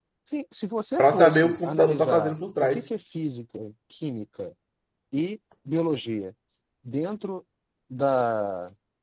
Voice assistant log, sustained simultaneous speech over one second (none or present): present